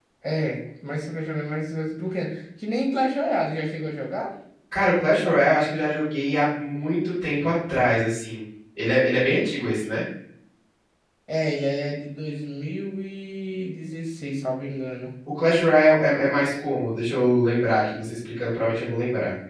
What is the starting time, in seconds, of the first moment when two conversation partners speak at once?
none

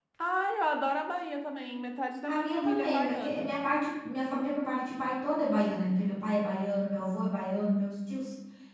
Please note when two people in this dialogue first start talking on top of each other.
2.3 s

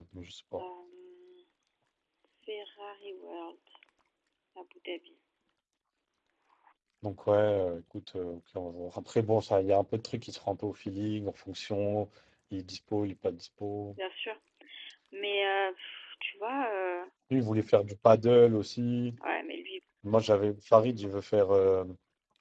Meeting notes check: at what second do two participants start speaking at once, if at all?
none

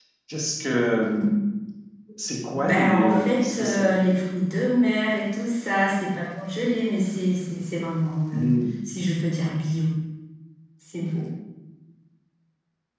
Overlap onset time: 2.5 s

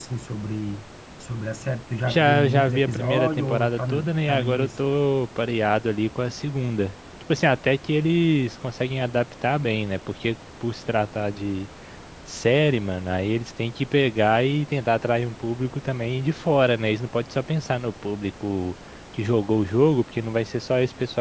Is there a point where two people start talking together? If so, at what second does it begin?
2.0 s

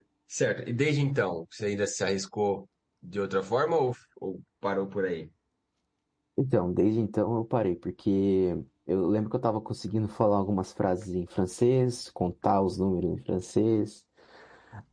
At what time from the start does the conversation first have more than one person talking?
none

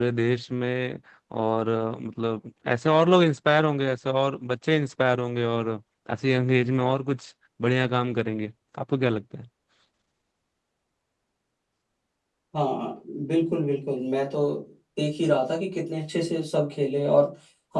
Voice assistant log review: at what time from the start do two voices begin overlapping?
none

